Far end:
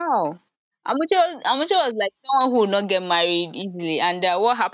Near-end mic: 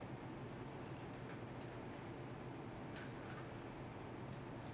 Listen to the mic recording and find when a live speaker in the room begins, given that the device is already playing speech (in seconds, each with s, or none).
none